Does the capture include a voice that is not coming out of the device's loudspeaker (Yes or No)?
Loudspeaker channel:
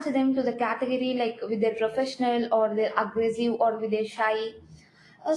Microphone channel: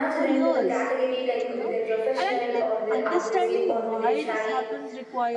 Yes